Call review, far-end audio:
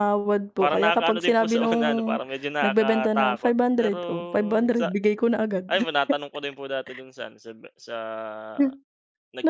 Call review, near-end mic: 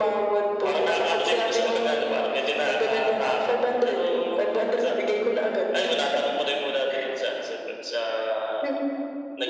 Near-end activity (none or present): none